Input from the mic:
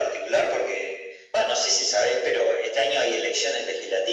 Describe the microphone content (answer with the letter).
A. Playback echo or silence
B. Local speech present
A